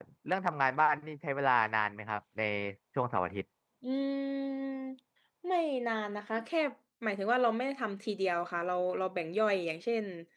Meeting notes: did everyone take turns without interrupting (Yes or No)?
Yes